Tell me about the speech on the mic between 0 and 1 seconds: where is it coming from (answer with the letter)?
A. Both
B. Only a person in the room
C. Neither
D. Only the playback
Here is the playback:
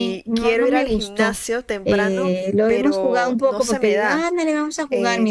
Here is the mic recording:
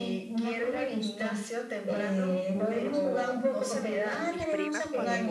D